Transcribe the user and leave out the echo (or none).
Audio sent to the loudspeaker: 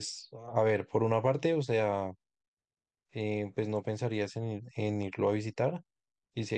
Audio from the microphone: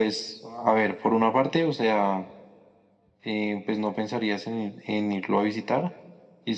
none